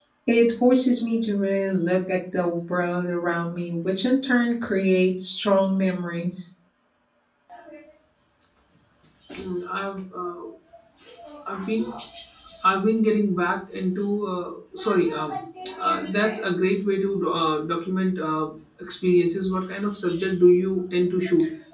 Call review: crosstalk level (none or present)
none